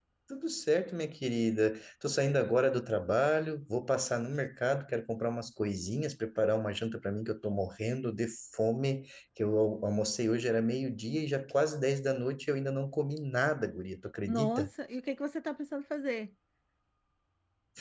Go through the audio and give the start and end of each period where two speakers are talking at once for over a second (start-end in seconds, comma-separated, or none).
none